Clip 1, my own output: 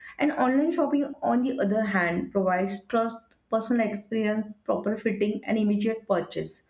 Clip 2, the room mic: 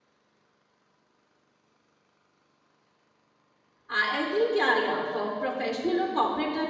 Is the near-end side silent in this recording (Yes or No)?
No